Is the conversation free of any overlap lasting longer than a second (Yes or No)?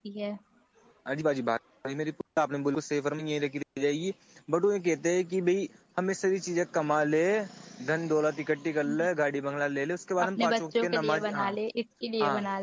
No